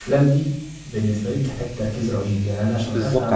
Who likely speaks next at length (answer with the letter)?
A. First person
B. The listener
B